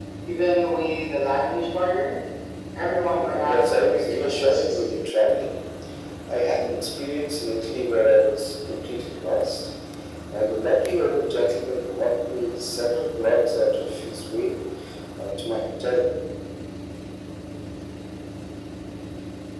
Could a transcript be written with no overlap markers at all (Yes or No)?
No